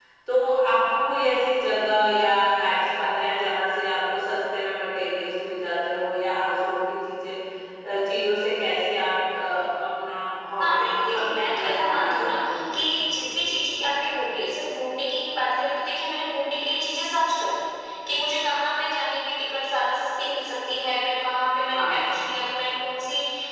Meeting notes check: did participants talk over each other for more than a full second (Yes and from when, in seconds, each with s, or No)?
Yes, from 10.6 s